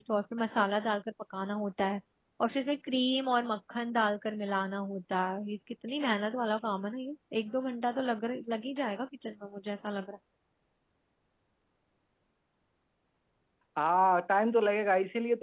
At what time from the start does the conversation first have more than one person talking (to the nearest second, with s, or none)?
none